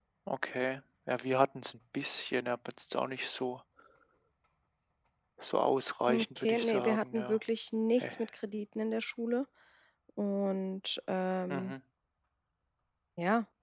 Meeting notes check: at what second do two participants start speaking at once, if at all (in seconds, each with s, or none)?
6.1 s